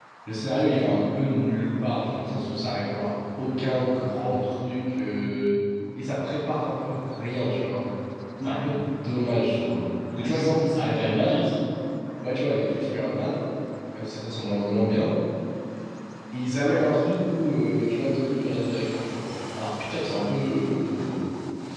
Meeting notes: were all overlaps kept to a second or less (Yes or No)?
No